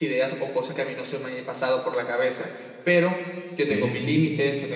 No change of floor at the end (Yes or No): Yes